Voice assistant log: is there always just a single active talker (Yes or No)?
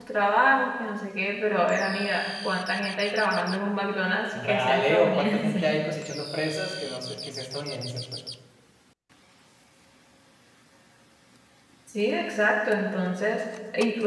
No